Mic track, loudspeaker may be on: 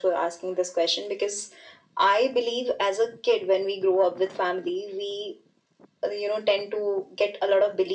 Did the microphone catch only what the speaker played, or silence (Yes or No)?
Yes